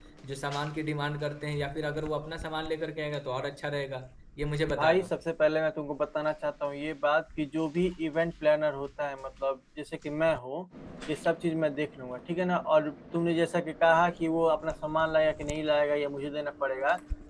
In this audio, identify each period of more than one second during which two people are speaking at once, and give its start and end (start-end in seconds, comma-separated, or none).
none